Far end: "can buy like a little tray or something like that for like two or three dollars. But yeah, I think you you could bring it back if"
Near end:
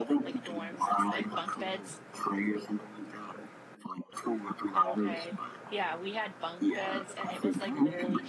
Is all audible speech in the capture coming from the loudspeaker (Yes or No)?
No